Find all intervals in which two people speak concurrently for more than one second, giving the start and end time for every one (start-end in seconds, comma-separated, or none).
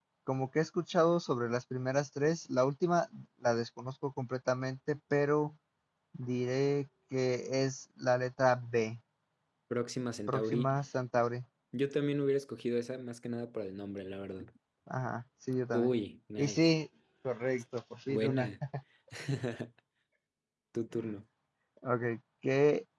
none